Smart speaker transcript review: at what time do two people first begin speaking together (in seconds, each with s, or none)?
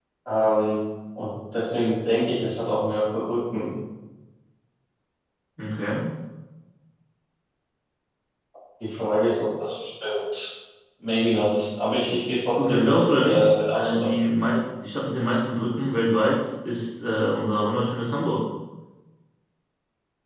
12.6 s